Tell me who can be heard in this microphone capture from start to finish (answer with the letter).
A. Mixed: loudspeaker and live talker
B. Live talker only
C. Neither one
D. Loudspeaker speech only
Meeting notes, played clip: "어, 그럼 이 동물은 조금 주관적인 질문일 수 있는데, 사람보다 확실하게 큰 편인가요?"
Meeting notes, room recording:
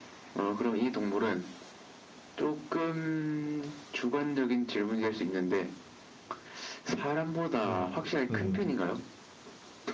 A